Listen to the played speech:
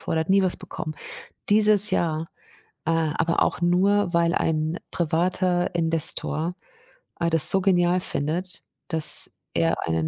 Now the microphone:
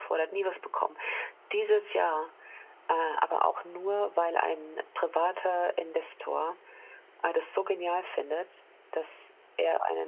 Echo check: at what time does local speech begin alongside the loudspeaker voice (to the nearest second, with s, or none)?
none